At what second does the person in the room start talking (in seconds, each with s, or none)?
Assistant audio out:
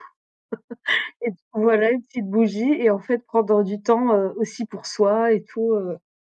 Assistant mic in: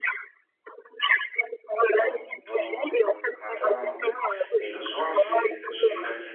1.9 s